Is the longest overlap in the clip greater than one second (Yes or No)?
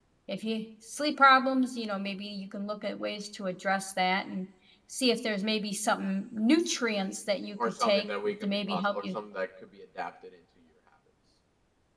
Yes